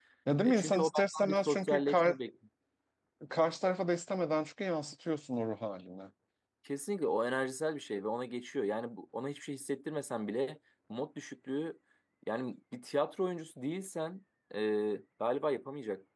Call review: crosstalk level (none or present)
present